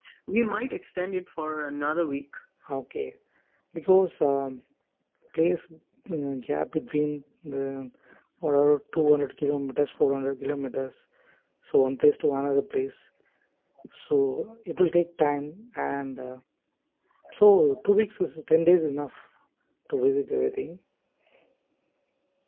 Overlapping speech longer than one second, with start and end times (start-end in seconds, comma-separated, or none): none